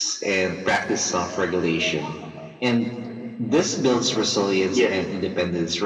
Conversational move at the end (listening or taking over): listening